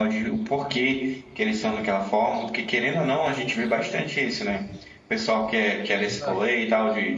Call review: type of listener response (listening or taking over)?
listening